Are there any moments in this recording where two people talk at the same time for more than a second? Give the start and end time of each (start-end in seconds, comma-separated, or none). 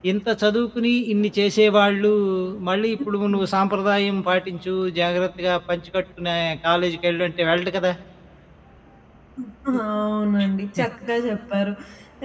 none